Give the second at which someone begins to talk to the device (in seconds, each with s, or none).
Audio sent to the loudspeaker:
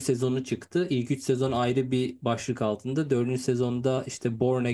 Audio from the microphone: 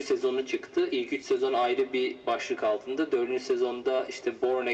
none